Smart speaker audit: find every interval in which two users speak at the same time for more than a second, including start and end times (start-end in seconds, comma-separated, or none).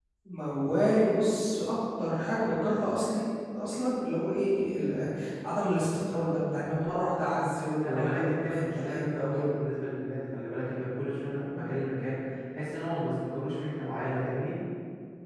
7.8-9.5